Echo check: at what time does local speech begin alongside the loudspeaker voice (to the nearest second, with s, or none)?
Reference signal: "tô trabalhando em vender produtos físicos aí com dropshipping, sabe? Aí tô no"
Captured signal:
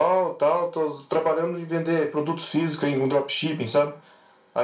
none